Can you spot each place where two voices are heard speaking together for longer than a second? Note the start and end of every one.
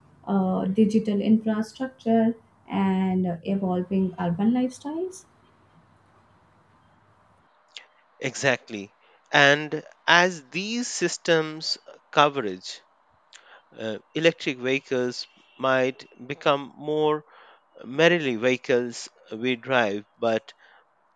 none

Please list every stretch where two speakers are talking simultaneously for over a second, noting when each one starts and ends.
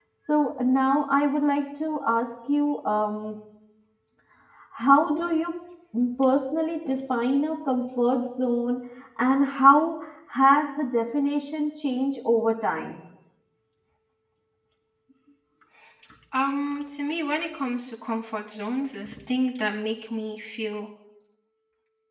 none

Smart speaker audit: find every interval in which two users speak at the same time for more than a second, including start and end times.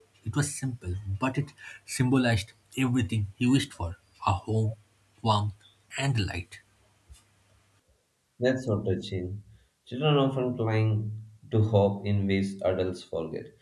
none

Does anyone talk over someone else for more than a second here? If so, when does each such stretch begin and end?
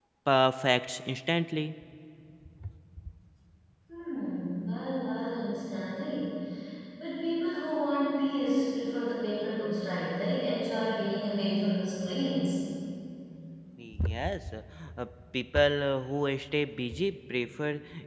none

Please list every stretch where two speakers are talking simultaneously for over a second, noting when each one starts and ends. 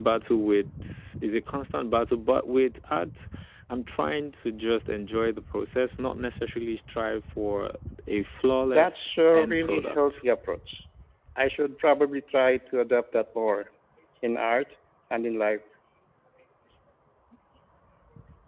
8.7-10.2

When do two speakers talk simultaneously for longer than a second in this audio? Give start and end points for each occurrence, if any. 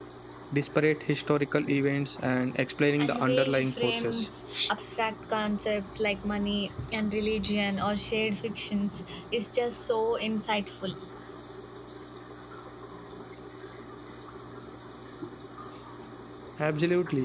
3.0-4.2

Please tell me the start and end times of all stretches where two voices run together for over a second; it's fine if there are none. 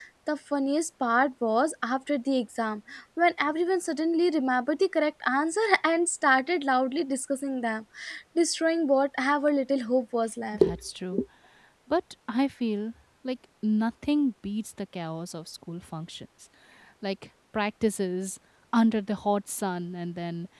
none

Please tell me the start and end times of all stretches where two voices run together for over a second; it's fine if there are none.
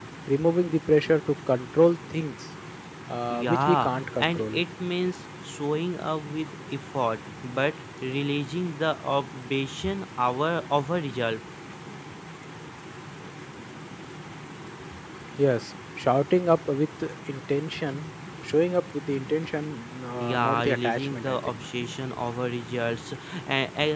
3.3-4.6, 20.2-21.6

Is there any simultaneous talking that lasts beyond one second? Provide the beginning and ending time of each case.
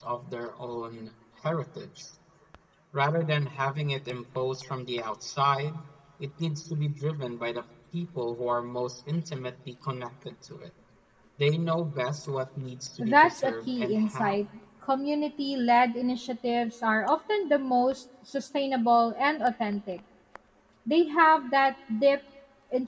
13.0-14.4

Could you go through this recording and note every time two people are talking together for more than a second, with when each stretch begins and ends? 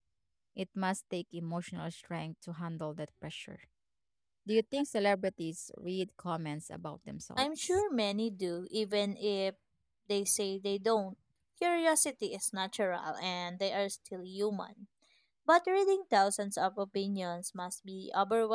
none

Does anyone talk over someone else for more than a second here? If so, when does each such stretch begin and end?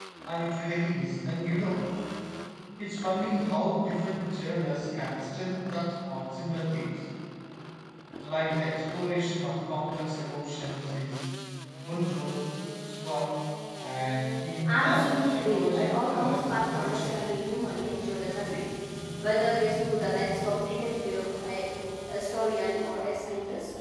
14.7-17.2

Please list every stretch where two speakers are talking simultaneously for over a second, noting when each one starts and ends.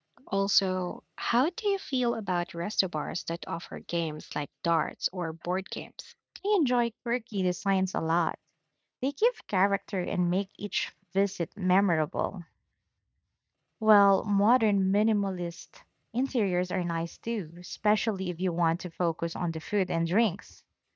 none

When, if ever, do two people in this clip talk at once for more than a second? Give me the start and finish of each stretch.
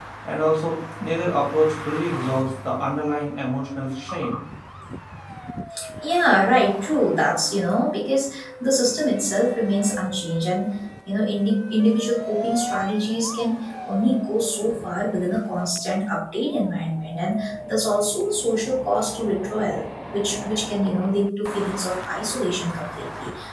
none

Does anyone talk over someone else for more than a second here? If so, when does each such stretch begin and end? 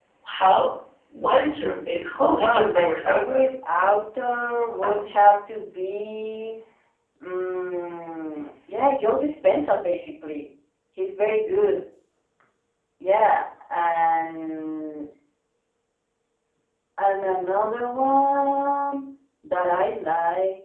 2.2-3.4

